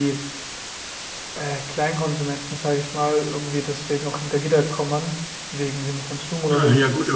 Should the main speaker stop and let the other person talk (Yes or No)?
Yes